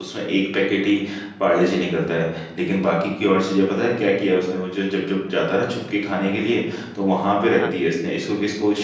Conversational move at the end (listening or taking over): listening